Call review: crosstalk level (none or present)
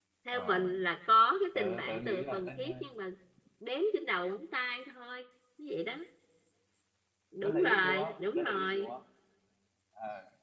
present